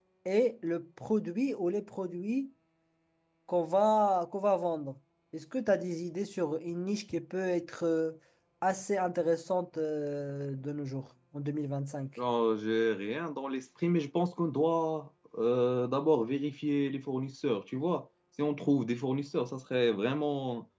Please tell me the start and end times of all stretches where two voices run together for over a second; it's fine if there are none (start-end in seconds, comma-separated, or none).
none